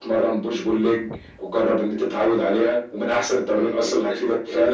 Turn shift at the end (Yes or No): Yes